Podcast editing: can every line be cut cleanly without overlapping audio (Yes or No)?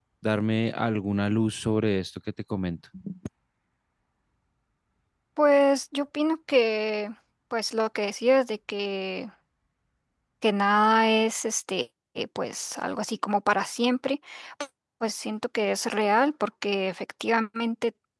Yes